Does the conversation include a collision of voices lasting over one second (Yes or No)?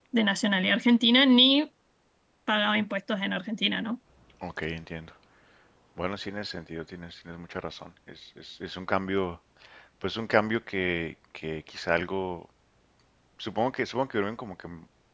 No